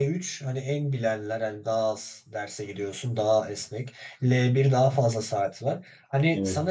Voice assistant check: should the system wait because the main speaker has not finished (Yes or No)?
Yes